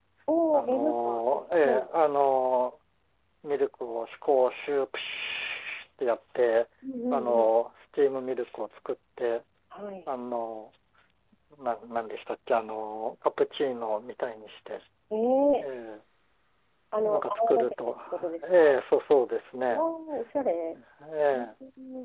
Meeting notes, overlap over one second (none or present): present